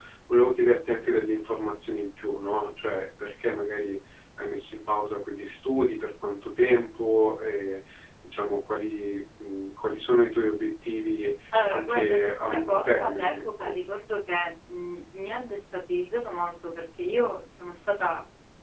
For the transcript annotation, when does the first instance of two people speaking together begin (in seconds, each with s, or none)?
11.5 s